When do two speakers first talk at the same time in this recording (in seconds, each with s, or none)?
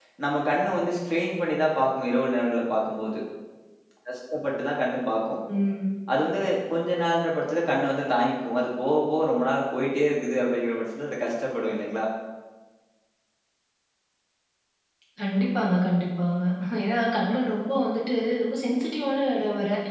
none